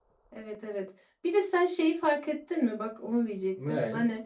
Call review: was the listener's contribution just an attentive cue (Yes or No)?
Yes